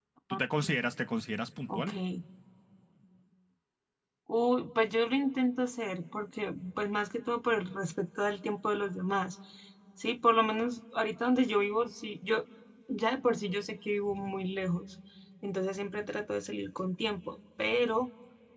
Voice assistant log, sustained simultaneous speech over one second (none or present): none